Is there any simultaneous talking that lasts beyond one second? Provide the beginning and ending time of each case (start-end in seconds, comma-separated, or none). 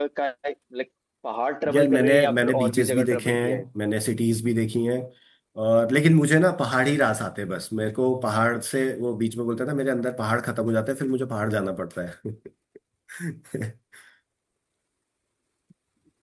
1.7-3.6